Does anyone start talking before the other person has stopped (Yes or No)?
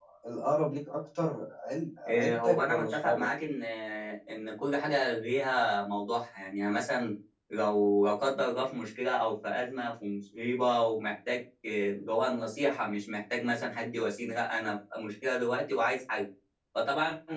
Yes